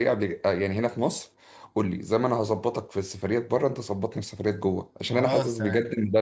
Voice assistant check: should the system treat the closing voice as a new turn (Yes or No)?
No